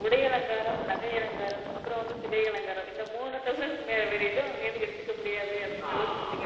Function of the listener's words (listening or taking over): taking over